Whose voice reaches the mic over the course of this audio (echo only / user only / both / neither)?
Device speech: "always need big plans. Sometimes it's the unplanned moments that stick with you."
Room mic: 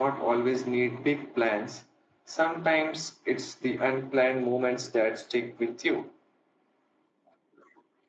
echo only